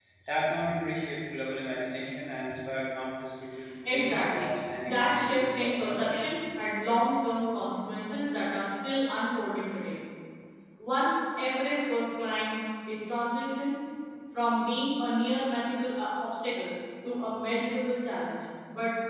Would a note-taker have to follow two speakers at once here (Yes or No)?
Yes